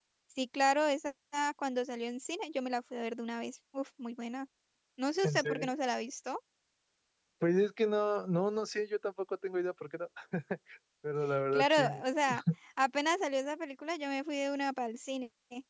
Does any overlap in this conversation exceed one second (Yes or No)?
No